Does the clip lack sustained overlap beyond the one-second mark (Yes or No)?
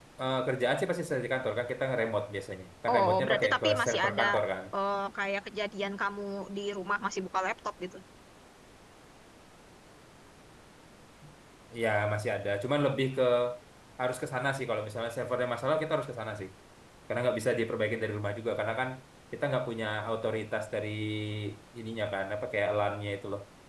No